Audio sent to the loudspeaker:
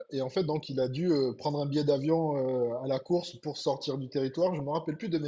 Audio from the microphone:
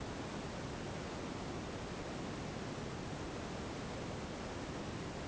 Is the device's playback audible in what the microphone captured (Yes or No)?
No